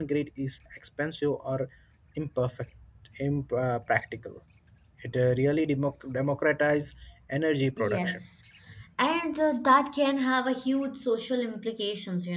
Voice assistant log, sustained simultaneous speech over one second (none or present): none